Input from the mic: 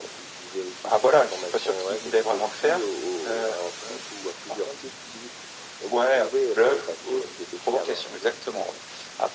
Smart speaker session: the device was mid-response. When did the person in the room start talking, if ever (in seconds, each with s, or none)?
none